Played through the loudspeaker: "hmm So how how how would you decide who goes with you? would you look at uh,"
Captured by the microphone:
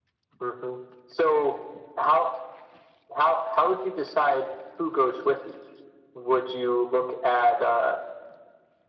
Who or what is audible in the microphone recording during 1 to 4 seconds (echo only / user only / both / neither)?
echo only